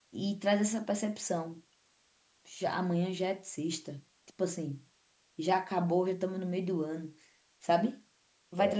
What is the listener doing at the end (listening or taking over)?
listening